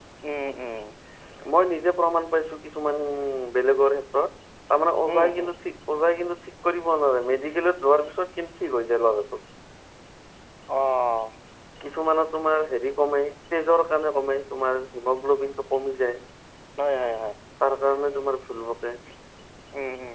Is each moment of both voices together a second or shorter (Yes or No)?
Yes